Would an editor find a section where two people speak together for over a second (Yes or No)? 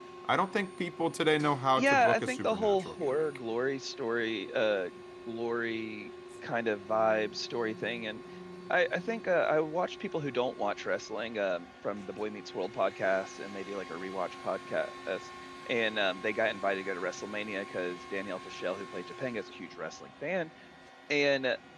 Yes